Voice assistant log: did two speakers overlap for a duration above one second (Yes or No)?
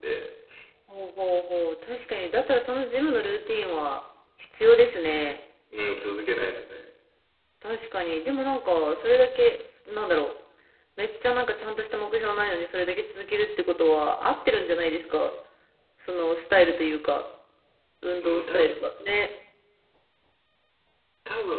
No